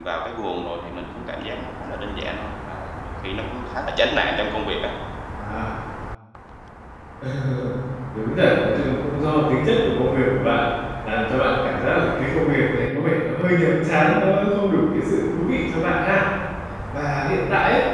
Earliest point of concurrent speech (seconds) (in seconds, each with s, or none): none